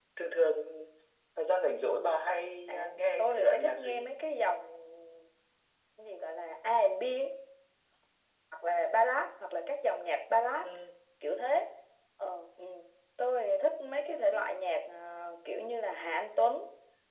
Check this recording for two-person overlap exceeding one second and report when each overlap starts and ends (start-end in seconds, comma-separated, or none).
2.7-4.1